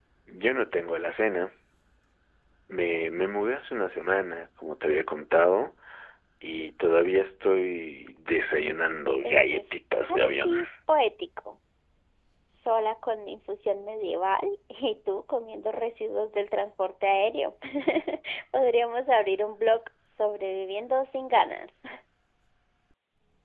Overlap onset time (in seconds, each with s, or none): 9.2 s